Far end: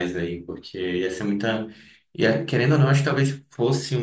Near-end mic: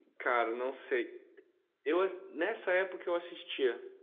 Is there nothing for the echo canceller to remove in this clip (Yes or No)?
Yes